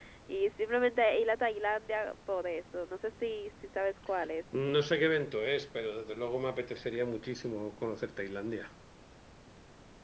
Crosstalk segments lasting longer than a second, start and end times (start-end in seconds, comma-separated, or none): none